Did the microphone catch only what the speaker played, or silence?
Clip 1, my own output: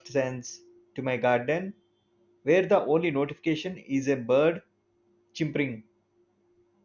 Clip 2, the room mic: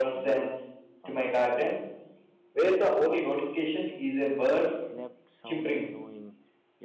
No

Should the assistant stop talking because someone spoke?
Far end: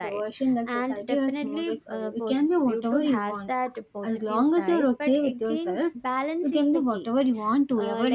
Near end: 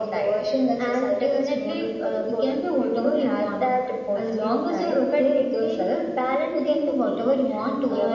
No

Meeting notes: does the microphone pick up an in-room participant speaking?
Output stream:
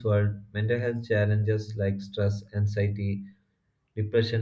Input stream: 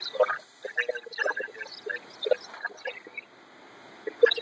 No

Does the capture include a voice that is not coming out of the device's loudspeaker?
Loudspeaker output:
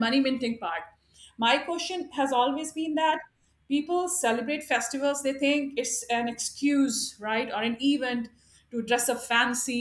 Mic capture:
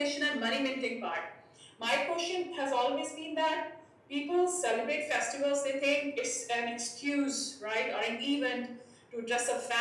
No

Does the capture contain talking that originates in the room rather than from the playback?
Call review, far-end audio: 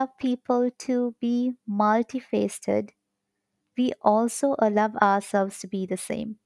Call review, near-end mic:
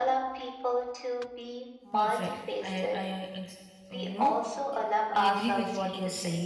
Yes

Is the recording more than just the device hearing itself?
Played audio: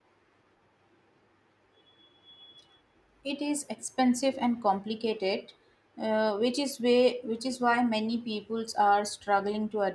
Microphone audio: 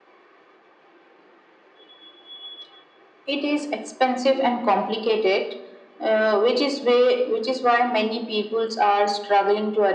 No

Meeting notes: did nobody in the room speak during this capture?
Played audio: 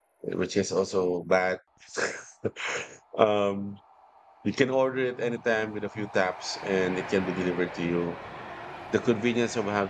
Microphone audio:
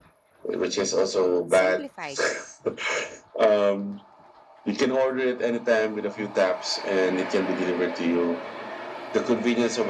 No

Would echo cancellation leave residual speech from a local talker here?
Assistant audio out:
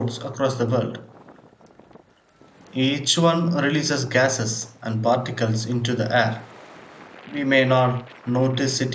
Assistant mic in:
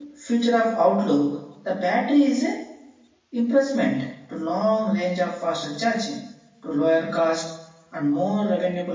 Yes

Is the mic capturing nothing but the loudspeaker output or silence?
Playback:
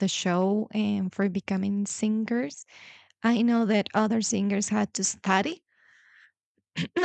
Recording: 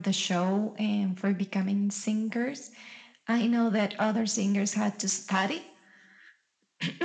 Yes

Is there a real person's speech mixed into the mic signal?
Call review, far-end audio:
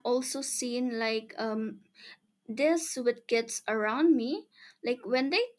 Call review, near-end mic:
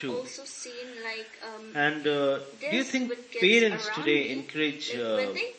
Yes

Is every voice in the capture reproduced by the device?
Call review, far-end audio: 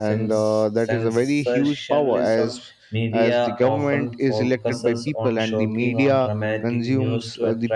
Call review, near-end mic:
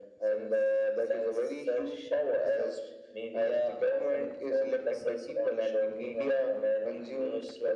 Yes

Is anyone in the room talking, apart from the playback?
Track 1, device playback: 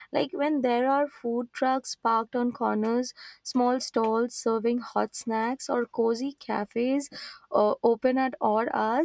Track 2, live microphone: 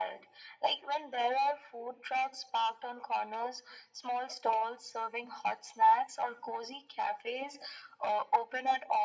No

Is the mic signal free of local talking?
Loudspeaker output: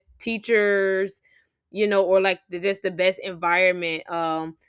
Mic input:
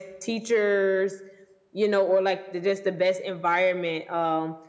Yes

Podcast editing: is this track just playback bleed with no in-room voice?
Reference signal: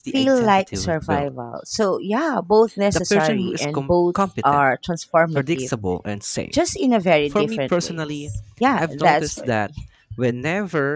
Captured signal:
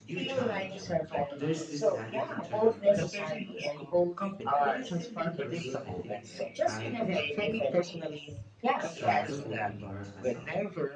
No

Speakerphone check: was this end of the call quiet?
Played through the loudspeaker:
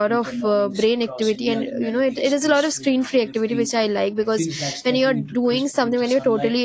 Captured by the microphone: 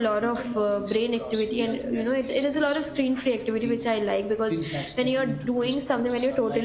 Yes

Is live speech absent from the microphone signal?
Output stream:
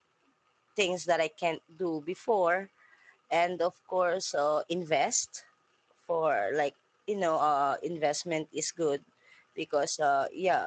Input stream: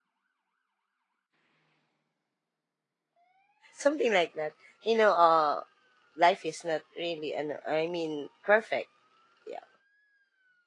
No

